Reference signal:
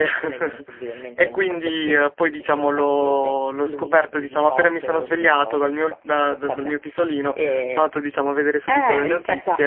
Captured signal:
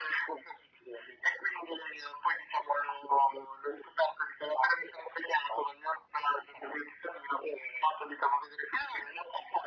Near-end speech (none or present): none